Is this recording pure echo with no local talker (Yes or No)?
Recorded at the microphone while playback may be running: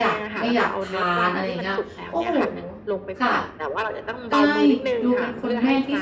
No